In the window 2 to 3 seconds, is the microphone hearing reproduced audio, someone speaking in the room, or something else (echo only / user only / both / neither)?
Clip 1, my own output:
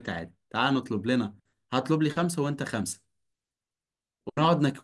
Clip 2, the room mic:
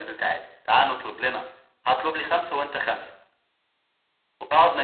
echo only